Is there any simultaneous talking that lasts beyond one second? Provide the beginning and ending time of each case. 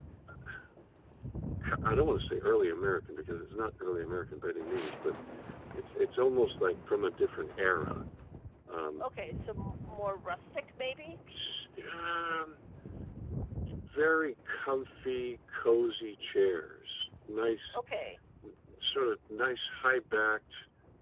none

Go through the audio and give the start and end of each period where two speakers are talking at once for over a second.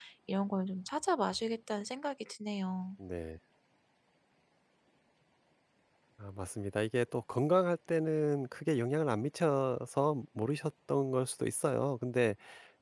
none

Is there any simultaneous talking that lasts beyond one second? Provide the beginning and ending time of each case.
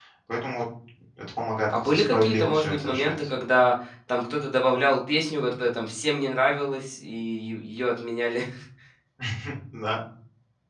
1.7-3.1

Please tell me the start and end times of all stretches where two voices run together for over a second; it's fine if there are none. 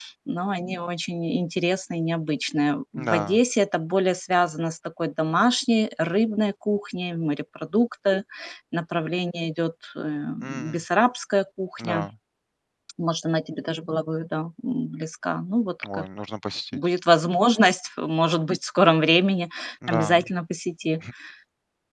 none

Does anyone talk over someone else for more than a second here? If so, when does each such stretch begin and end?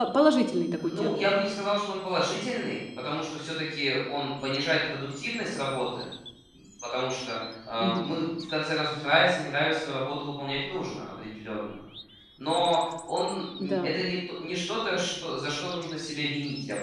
none

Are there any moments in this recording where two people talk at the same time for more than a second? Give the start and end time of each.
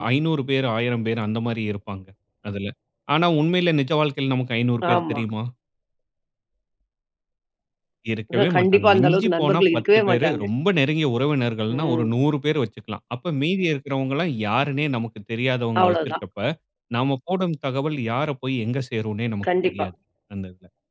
8.3-10.4

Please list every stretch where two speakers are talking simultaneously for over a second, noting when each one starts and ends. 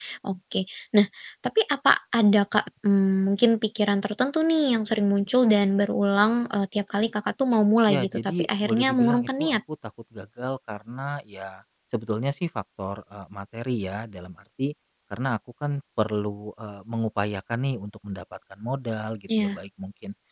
7.9-9.6

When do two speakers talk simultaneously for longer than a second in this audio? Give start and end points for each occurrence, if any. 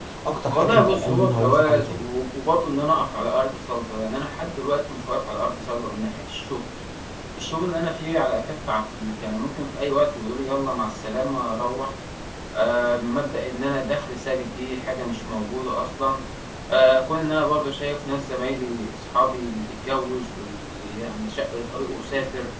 0.5-2.1

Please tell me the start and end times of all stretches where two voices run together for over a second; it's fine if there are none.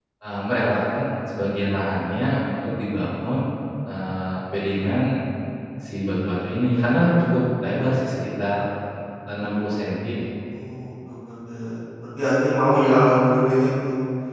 none

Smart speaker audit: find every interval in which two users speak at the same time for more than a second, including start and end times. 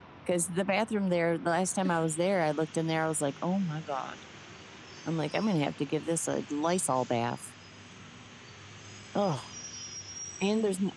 none

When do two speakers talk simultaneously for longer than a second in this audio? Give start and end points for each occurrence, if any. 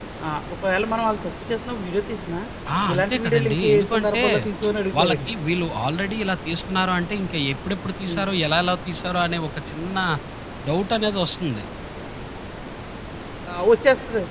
2.9-4.2

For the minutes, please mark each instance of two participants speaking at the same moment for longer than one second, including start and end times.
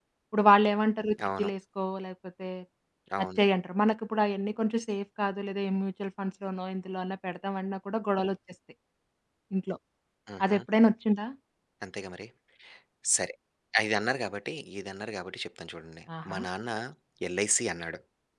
none

